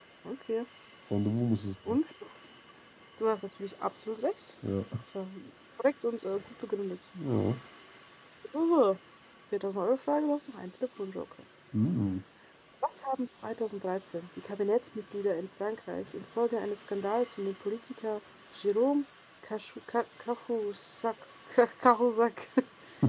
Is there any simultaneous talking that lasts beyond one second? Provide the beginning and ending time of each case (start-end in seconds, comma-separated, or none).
none